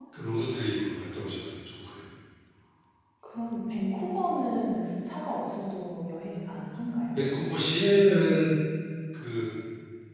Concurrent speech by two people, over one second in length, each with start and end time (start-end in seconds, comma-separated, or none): none